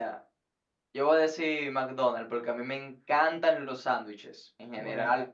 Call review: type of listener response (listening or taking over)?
listening